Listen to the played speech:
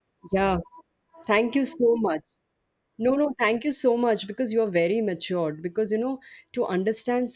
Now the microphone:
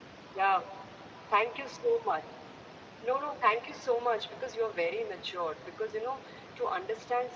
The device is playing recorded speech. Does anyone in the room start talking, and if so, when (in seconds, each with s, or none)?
none